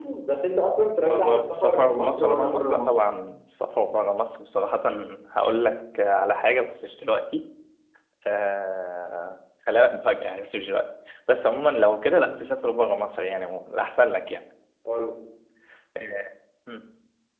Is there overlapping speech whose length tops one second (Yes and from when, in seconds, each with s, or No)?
Yes, from 1.1 s